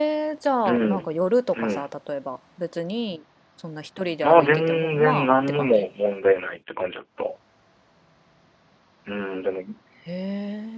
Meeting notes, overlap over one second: present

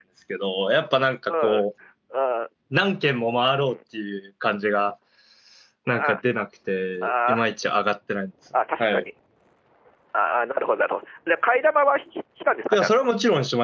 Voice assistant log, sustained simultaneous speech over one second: none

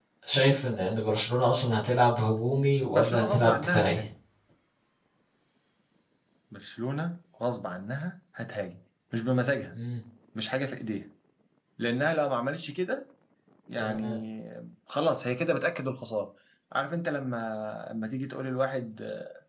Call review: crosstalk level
present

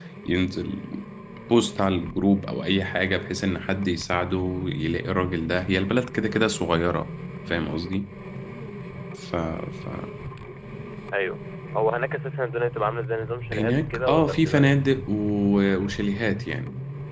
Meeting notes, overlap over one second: present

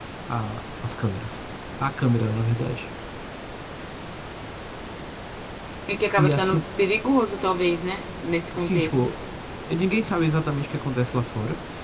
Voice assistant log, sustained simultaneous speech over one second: none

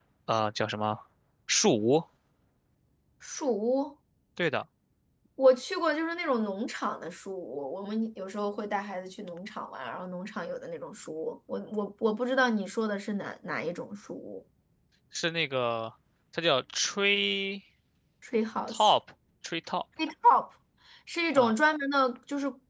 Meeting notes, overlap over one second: none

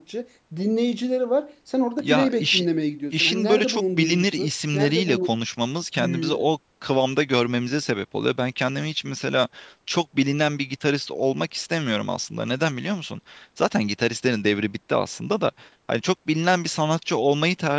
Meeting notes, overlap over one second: present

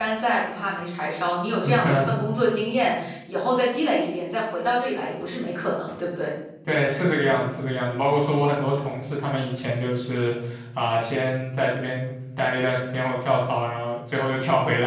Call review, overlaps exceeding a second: none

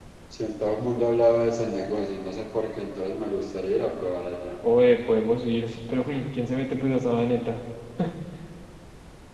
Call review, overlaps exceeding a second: none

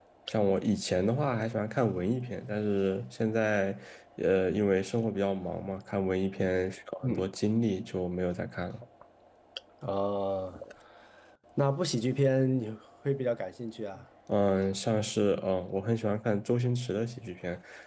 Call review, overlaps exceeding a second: none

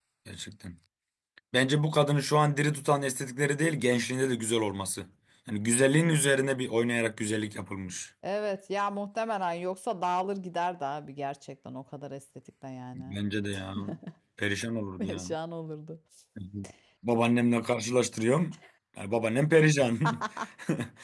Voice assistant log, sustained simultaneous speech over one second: none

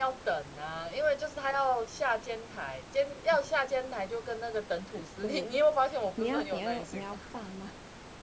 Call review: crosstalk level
present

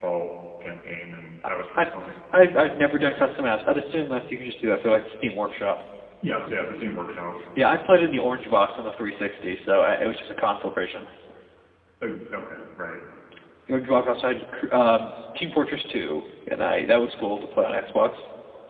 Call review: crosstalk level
none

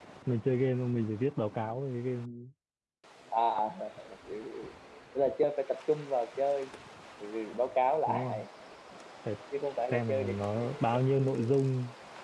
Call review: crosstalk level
present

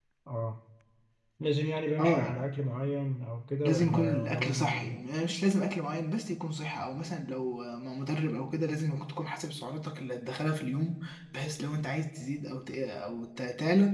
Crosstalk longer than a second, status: present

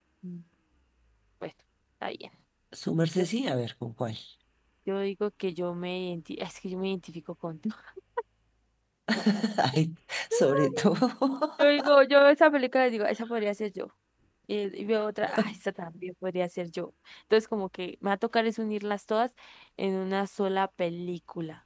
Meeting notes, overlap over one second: none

